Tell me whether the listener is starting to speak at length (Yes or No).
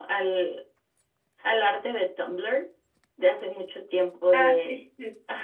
No